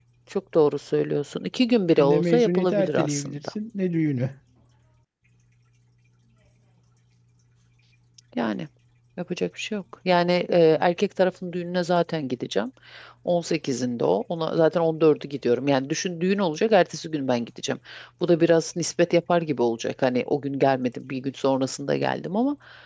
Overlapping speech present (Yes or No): Yes